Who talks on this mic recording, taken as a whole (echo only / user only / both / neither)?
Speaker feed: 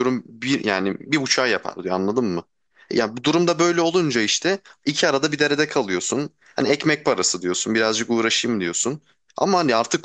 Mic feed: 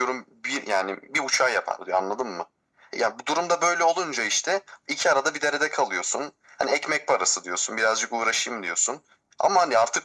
echo only